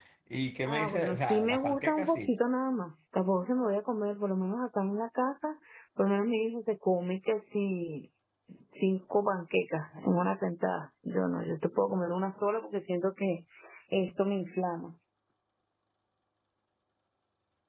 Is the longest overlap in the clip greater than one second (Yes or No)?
Yes